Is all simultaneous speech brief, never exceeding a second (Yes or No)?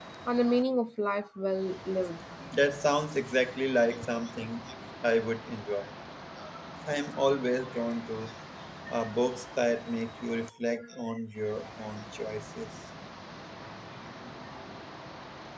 Yes